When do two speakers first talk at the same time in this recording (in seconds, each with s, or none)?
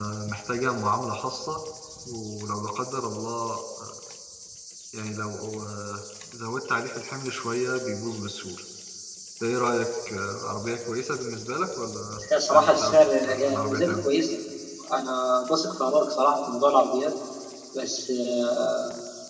12.3 s